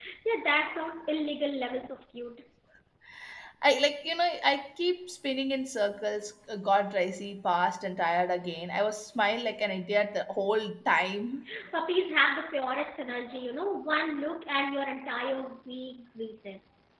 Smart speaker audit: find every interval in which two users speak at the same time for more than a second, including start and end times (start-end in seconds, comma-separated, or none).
none